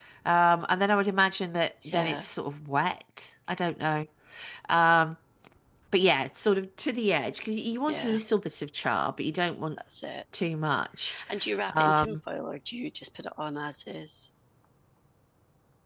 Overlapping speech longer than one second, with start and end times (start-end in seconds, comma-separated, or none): none